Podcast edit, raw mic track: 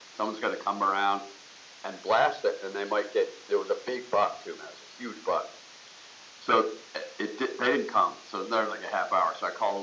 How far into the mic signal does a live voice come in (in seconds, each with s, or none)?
none